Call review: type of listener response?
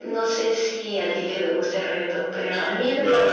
taking over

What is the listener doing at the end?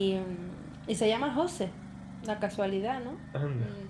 listening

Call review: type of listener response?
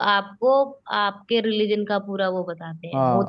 taking over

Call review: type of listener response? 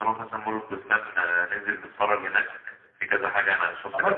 listening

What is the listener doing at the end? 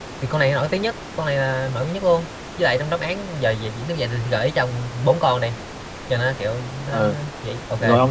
taking over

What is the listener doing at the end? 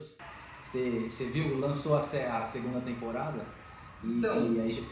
listening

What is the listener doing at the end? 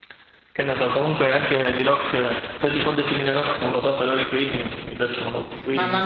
taking over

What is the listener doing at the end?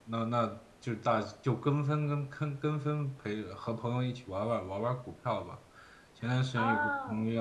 listening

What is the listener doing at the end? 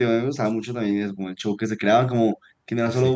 listening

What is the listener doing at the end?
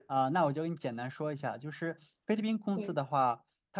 listening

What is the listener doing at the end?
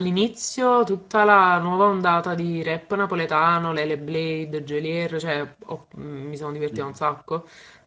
listening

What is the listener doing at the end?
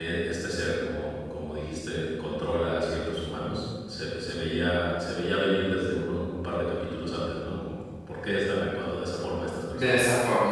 taking over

